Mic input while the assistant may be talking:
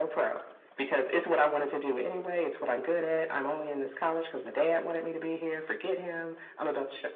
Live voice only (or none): none